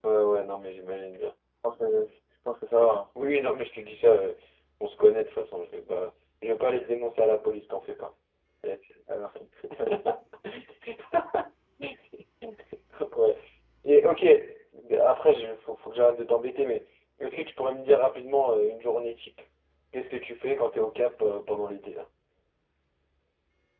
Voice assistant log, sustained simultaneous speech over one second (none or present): none